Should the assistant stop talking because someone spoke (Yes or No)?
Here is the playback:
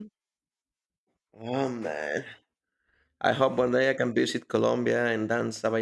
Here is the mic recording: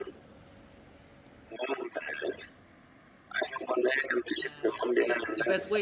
Yes